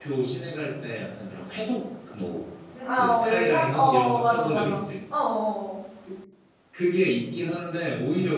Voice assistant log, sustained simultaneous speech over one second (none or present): present